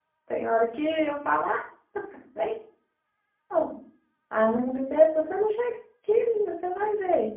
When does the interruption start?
none

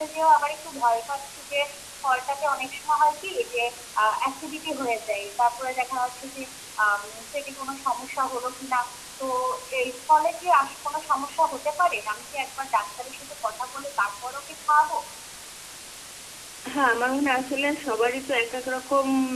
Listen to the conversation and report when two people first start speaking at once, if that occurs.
none

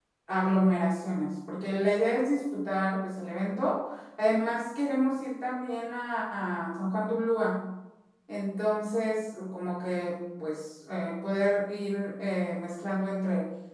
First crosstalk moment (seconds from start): none

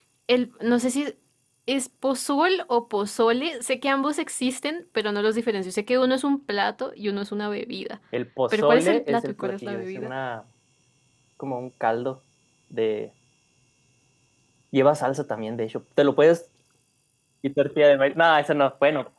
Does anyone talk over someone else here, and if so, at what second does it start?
8.5 s

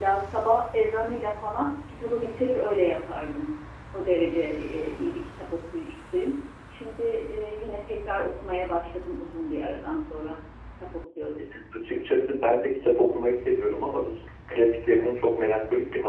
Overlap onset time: none

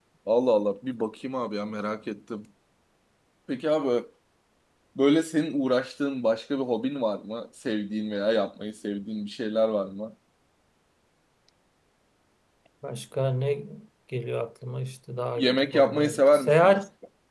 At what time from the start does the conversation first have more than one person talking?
15.4 s

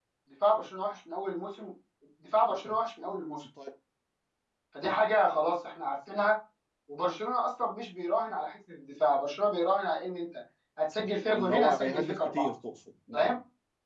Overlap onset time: 11.3 s

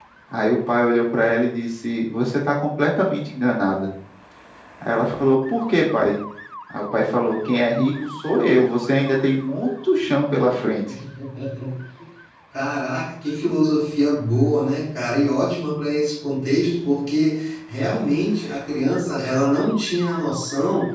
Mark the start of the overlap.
none

